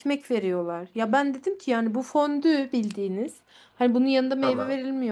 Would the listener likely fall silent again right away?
Yes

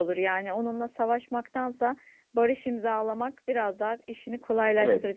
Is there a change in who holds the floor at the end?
Yes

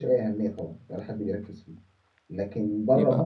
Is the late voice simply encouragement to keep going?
Yes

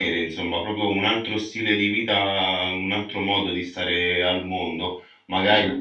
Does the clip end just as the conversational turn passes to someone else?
No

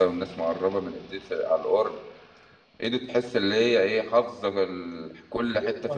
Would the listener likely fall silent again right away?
No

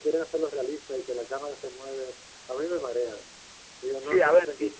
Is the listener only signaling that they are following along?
No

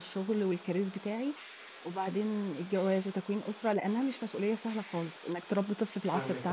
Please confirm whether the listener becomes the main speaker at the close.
Yes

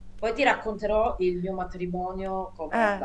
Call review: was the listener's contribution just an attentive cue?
No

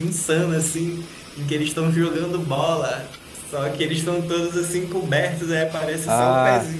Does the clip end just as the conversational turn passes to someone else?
No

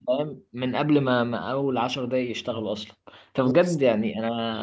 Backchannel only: Yes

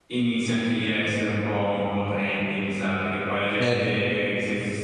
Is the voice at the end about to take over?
No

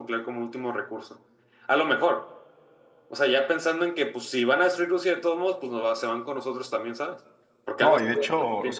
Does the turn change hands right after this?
Yes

